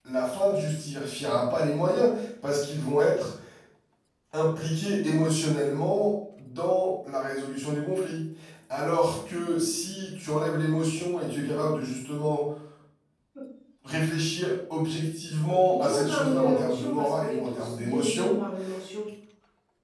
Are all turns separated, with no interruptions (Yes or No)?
No